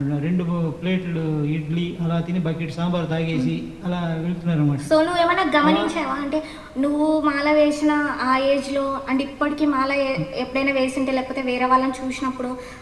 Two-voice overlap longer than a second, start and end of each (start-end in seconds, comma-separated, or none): none